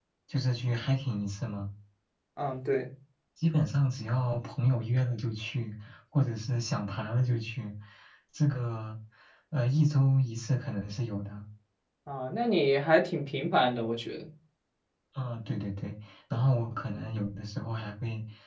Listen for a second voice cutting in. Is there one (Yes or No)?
No